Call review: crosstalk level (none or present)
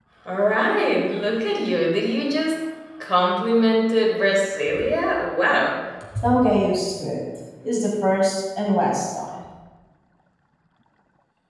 none